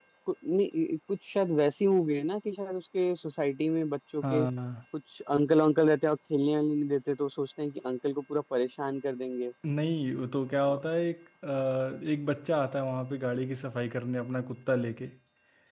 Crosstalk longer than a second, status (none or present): none